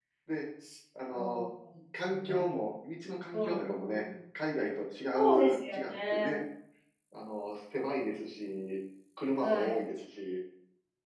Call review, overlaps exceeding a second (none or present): present